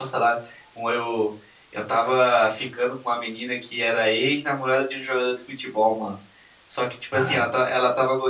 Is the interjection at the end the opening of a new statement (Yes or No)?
No